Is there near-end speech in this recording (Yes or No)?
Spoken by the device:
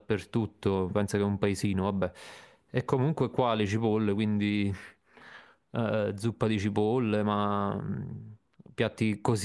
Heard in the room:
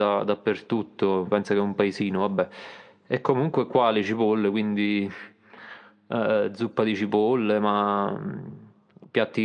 No